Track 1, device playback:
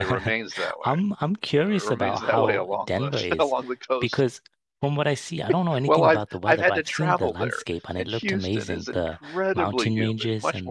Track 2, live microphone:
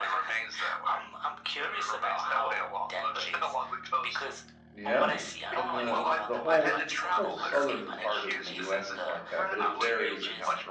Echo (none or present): present